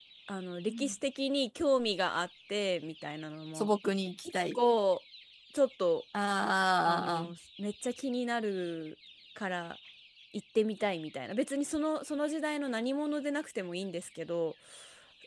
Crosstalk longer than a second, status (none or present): none